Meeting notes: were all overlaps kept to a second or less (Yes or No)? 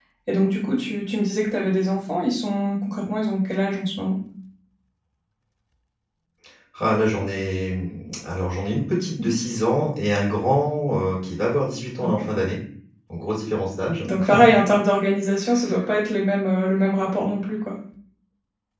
Yes